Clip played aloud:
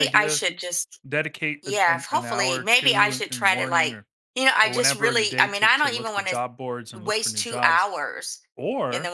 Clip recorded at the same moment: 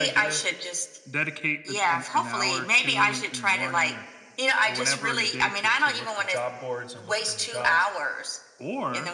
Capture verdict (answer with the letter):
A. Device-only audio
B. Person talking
A